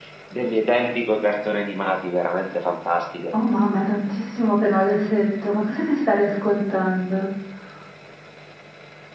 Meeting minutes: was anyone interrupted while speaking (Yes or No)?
No